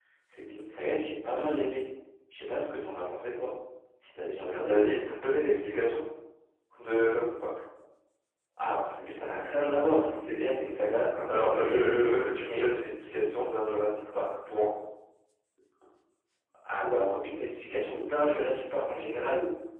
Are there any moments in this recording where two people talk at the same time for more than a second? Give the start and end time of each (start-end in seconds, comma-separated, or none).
11.3-12.7